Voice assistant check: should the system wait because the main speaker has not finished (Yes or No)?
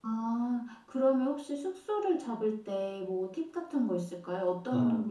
No